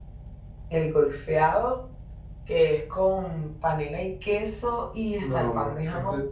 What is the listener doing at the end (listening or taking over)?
taking over